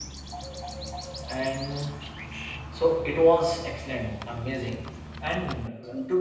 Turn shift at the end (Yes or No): No